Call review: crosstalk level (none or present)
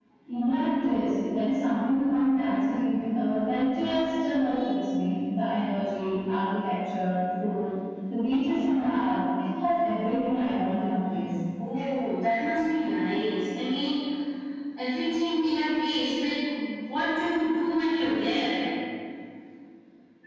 none